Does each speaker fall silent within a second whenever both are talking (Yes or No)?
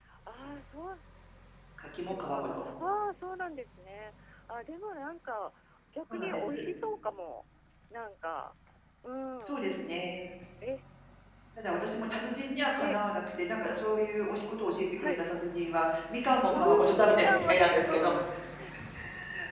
No